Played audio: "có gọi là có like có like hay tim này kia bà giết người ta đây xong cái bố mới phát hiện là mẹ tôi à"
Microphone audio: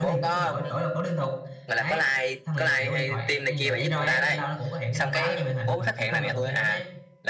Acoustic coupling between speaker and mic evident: Yes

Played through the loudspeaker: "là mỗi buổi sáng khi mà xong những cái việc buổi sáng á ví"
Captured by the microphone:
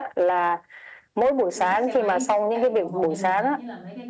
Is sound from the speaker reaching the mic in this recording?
Yes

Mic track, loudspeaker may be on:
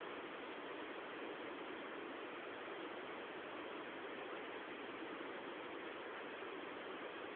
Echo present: No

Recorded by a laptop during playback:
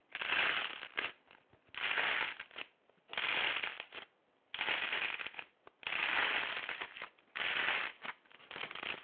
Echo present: No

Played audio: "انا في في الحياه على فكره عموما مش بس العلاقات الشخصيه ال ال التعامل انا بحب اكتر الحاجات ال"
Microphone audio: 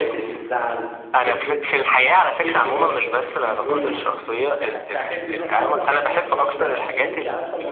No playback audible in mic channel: No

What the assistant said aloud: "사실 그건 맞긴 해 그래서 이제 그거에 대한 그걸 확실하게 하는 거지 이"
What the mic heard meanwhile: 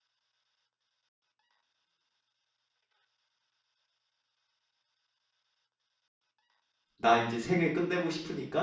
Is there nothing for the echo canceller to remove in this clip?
Yes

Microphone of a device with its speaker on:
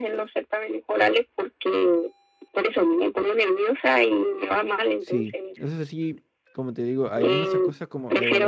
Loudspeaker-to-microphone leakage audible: Yes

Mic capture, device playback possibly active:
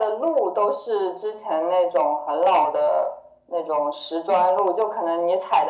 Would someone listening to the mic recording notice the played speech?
Yes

